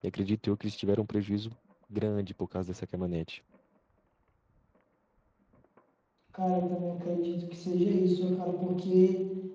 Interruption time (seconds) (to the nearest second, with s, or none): none